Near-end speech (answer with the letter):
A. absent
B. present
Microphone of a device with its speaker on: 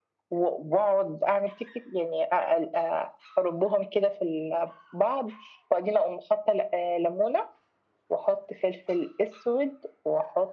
A